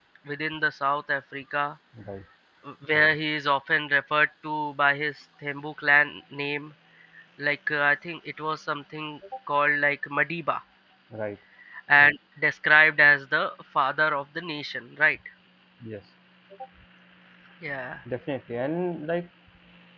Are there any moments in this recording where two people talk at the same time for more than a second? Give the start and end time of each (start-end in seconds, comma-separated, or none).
none